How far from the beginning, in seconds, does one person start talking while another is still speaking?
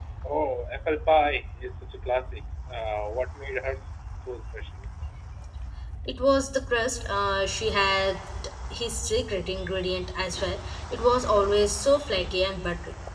none

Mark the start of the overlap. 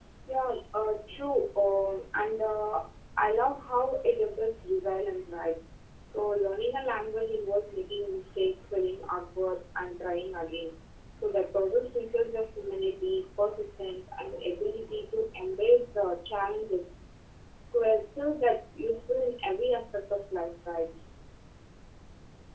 none

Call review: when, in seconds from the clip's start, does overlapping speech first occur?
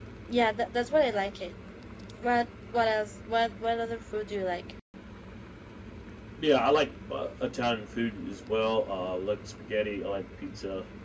none

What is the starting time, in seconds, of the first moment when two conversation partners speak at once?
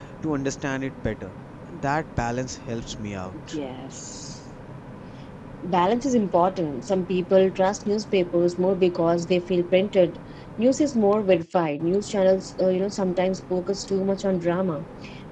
none

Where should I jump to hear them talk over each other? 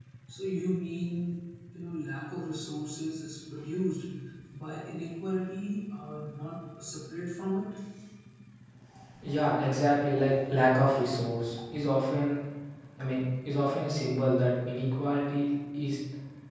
none

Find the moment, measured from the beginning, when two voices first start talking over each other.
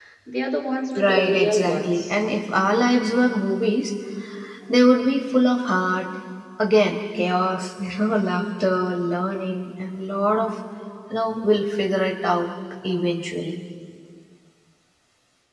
1.0 s

